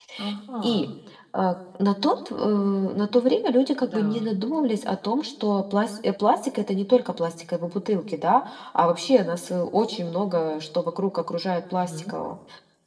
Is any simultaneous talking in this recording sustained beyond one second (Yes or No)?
No